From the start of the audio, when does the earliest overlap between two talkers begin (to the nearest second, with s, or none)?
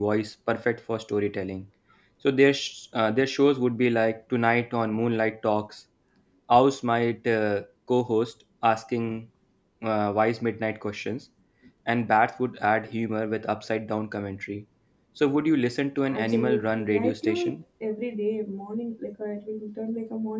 16 s